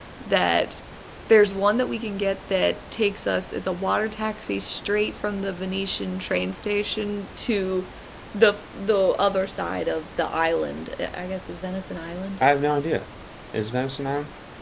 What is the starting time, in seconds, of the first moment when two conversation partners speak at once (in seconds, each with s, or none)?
none